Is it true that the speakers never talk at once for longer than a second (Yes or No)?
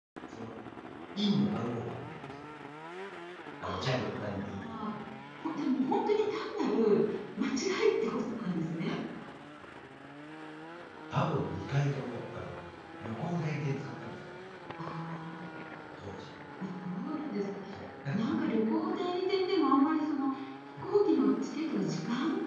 No